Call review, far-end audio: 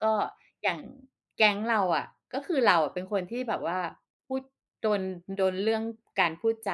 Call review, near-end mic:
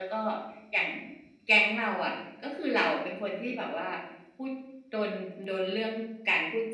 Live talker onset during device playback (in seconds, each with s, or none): none